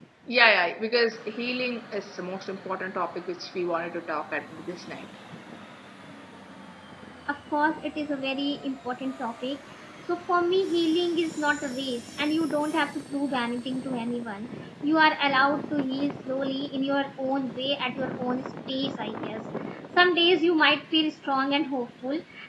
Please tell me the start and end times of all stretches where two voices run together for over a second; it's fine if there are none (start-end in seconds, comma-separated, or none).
none